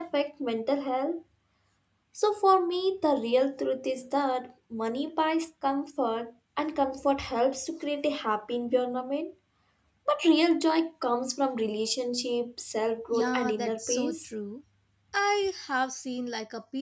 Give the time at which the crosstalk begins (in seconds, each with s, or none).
13.1 s